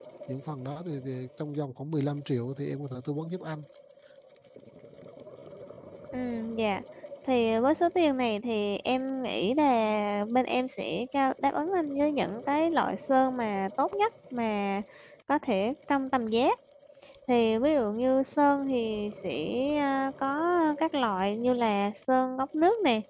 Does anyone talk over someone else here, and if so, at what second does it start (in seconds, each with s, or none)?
none